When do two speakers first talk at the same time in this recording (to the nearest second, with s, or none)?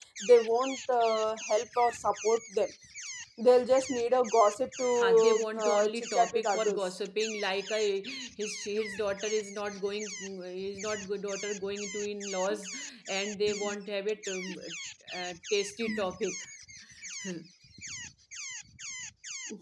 5 s